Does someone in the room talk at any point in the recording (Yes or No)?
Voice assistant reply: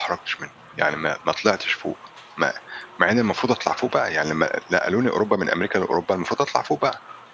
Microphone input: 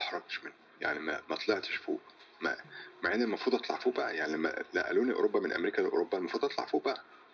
No